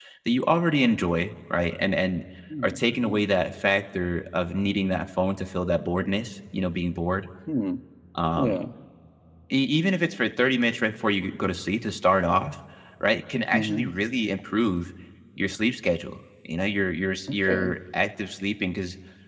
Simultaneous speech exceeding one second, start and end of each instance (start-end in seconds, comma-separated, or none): none